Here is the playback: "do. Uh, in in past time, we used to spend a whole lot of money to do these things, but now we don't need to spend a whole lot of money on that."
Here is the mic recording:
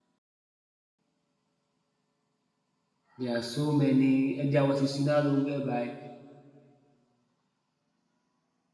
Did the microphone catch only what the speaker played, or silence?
No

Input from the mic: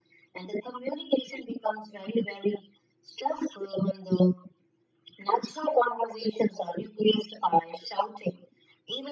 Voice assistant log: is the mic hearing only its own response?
Yes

